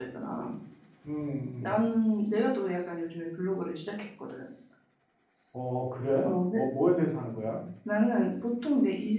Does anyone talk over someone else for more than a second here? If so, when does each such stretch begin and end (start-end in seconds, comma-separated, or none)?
none